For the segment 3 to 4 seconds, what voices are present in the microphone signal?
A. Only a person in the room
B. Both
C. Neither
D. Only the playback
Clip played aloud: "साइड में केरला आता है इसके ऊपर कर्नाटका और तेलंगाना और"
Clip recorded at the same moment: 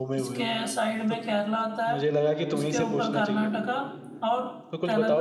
B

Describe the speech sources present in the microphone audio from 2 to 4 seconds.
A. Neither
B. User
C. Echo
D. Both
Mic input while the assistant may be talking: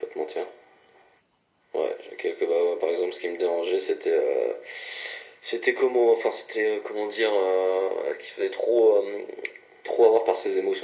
C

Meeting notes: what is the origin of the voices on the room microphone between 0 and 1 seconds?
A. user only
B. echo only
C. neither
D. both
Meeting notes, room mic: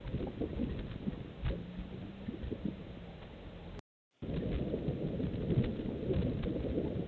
C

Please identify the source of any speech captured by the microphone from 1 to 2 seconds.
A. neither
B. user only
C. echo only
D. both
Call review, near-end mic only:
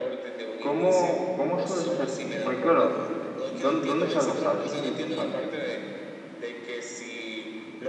D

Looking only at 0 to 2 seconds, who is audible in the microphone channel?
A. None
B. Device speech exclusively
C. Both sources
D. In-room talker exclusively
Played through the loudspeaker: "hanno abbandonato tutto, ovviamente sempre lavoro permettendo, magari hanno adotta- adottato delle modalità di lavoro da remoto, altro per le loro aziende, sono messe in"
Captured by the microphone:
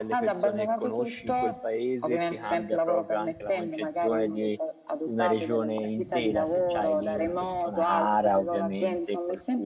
C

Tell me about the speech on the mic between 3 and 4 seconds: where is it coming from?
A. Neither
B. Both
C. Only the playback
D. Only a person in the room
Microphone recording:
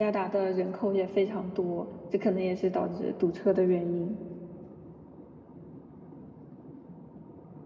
D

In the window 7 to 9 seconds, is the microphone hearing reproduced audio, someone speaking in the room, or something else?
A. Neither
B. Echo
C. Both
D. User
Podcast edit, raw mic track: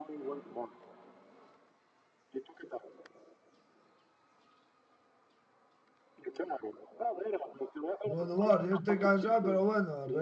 C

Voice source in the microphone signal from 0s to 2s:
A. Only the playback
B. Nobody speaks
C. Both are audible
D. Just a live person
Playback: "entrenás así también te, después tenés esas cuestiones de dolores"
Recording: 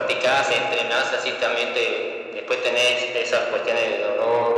A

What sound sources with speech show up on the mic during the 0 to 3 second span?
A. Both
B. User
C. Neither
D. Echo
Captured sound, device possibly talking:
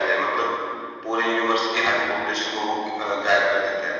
D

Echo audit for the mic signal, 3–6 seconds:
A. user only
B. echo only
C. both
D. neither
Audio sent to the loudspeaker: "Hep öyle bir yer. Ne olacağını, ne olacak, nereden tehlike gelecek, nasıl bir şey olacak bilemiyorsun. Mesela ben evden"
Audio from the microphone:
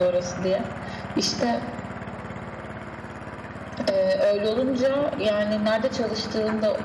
A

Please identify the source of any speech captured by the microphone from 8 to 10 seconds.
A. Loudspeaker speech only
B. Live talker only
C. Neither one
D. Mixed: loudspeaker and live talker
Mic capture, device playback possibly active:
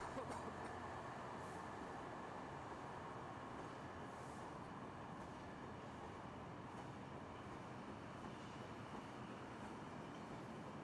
C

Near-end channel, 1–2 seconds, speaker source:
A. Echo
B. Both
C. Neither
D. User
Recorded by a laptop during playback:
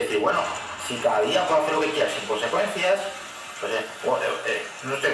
A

